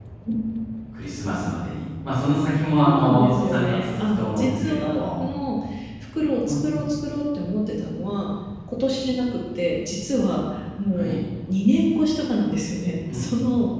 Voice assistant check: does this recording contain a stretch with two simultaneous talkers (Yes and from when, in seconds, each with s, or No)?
Yes, from 2.8 s